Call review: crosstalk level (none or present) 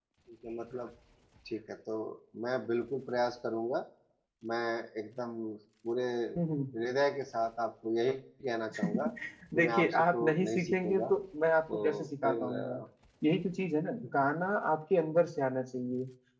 present